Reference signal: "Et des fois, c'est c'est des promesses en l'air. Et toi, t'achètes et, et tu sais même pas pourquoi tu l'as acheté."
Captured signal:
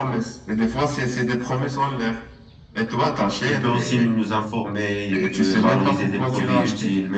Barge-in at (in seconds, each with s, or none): 3.4 s